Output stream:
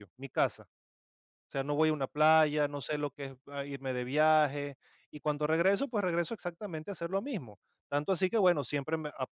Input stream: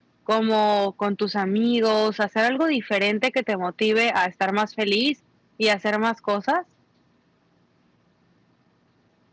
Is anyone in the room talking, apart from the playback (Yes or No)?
Yes